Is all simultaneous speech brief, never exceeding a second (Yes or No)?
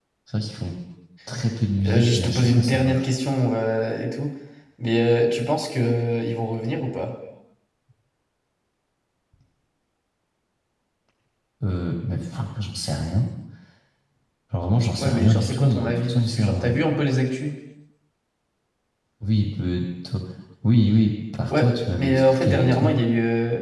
No